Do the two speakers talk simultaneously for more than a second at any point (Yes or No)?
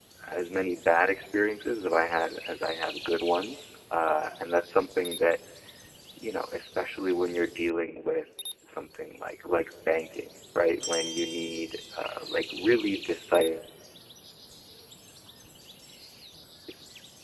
No